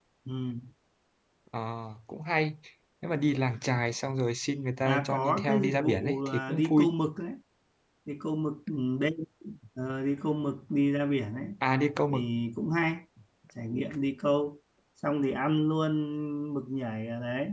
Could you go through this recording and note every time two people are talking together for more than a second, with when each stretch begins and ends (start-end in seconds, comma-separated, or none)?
4.8-6.9